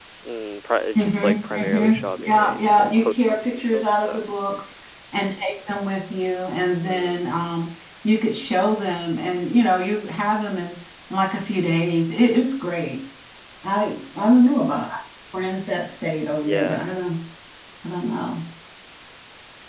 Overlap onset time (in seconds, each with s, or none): 1.0 s